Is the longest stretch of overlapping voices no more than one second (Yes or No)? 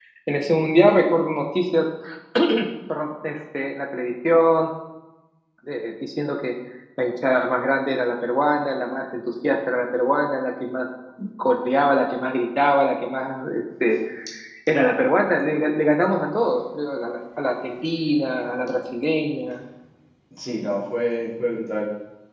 Yes